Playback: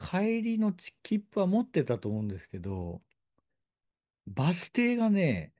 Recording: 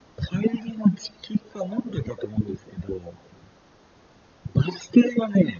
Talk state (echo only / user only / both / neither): echo only